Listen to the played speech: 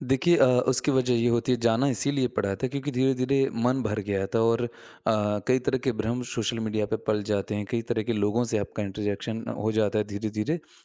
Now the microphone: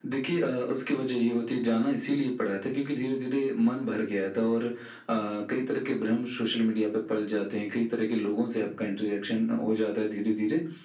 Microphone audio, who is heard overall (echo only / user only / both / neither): echo only